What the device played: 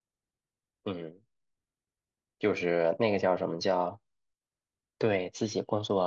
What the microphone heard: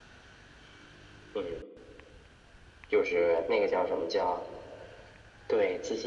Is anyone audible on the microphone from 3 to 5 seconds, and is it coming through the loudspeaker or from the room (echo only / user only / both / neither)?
echo only